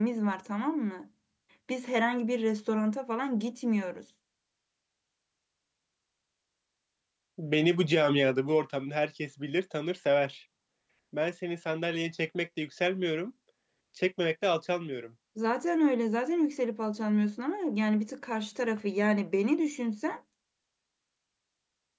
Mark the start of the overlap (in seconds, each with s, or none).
none